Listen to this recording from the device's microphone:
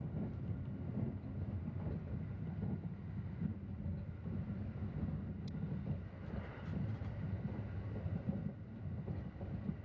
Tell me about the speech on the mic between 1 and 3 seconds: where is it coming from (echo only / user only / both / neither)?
neither